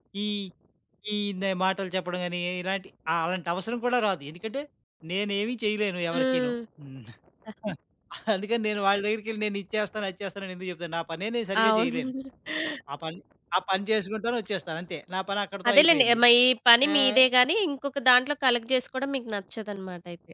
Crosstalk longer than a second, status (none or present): none